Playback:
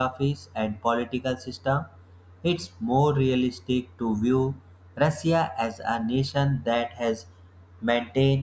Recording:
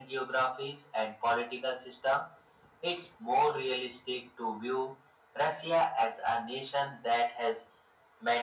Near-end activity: none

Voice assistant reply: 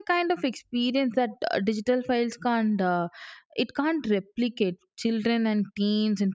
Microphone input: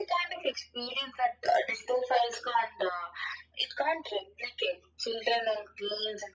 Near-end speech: none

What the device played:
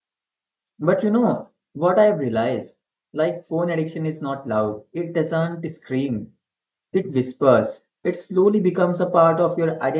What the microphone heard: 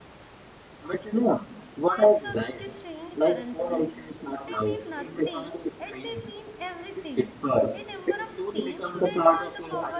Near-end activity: present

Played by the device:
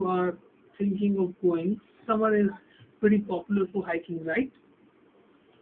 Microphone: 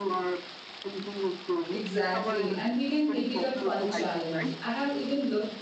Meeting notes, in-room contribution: present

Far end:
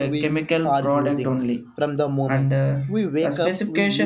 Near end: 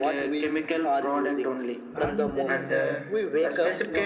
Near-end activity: present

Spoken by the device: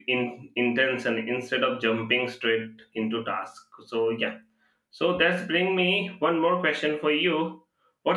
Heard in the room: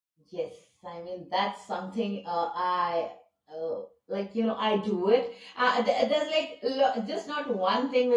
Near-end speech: present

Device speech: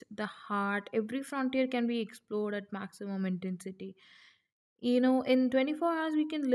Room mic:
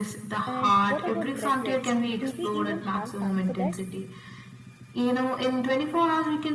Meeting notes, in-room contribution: present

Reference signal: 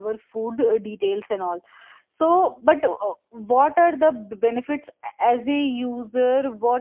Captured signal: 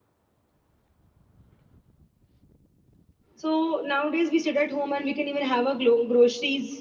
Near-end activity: present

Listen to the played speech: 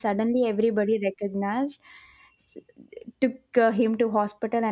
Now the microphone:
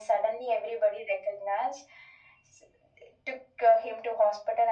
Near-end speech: none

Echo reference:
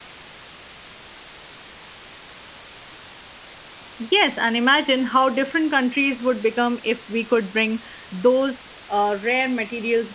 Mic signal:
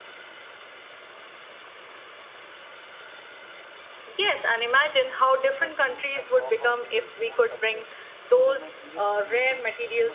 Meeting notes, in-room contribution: present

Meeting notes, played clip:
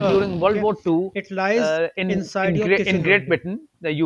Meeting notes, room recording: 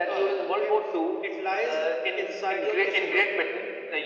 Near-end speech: none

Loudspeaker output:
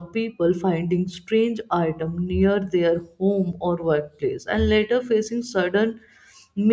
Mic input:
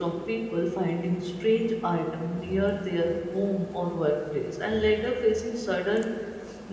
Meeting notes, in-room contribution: none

